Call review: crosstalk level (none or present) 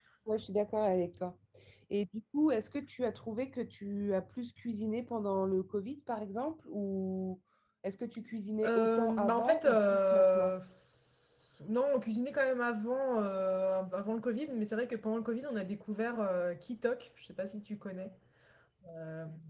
present